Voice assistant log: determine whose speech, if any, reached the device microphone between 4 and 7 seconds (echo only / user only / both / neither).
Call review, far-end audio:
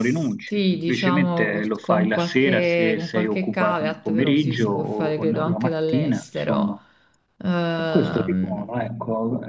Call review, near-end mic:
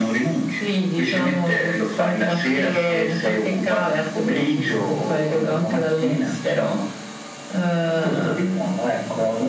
echo only